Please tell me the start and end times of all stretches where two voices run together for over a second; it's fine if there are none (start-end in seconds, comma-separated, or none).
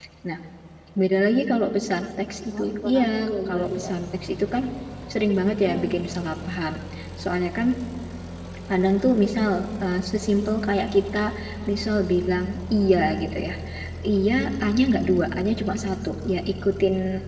2.6-3.9